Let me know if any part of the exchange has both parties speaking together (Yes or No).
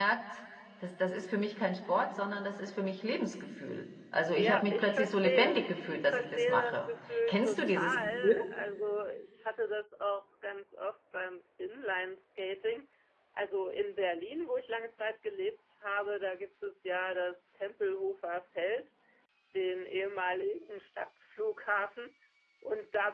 Yes